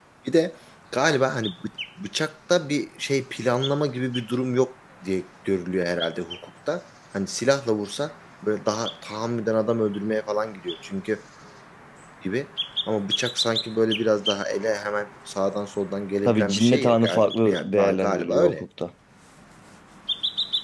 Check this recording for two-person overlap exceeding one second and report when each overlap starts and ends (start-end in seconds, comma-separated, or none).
16.2-18.5